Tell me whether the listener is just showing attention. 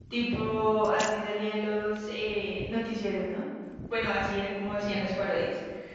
Yes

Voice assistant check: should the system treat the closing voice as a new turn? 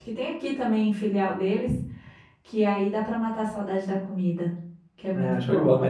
Yes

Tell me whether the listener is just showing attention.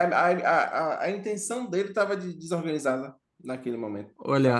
No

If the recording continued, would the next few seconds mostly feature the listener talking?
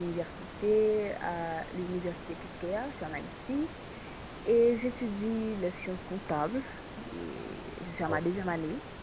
No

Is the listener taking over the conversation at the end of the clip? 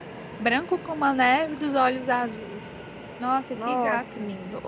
No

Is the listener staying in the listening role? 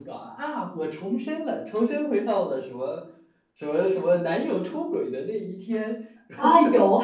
No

